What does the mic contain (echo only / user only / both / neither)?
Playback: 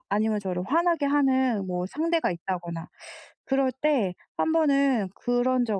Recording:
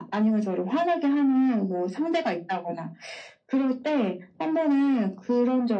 echo only